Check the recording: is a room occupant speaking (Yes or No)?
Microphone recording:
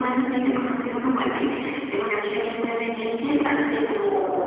No